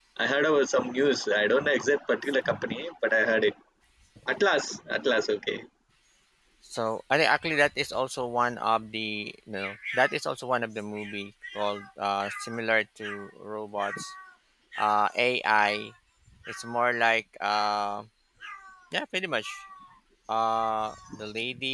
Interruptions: none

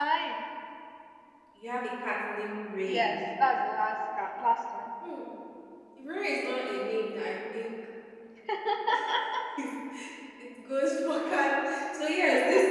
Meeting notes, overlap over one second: none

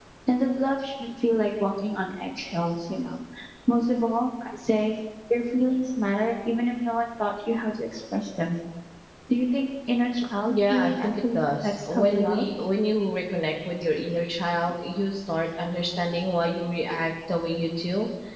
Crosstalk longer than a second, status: present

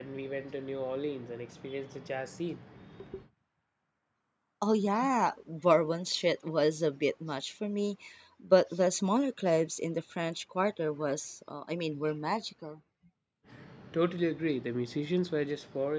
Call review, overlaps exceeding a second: none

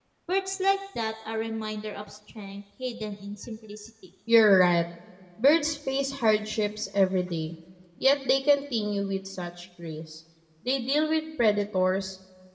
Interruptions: none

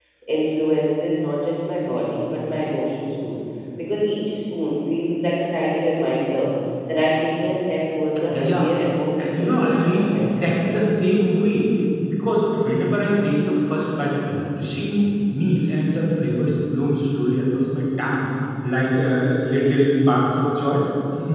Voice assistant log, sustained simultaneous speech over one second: present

